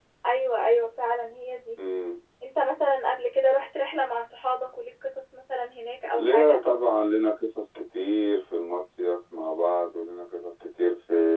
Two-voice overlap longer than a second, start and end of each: none

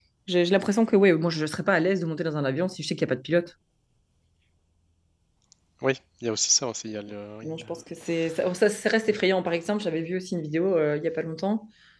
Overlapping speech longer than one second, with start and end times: none

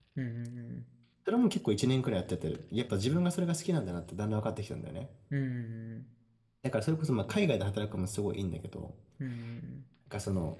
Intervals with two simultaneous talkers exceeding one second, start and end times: none

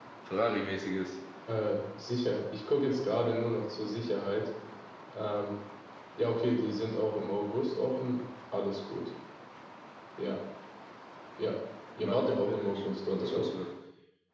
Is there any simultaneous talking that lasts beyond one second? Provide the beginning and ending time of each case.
12.1-13.5

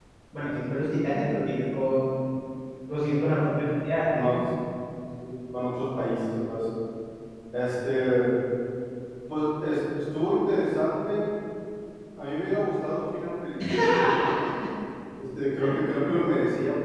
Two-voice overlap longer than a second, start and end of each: none

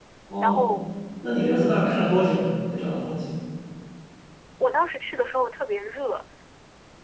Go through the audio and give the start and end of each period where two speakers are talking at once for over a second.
none

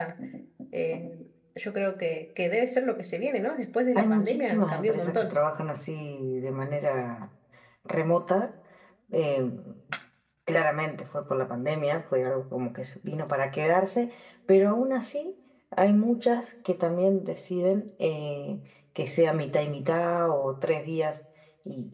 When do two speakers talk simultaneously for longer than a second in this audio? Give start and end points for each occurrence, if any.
4.0-5.4

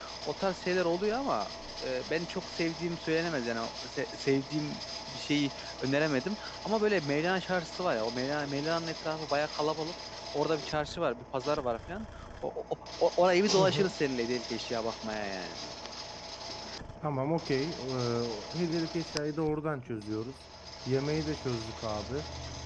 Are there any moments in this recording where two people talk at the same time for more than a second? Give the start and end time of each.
none

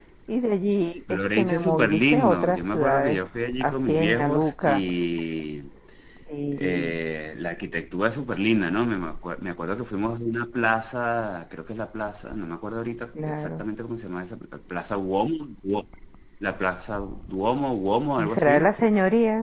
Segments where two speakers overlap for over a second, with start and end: 1.1-3.2, 3.6-4.8

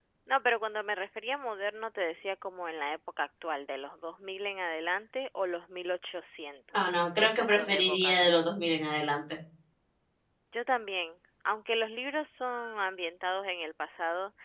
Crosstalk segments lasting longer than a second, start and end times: 6.7-8.2

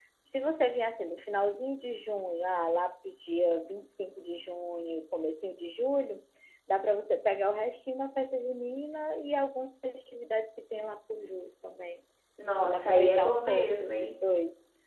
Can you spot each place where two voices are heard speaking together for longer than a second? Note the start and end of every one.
12.6-14.1

